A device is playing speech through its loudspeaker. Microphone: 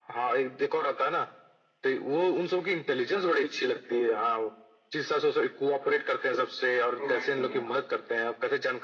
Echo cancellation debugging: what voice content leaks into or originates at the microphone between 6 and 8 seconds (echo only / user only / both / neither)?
both